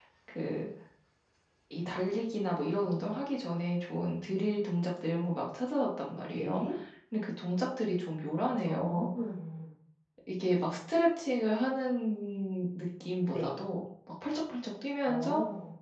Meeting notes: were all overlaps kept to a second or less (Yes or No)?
Yes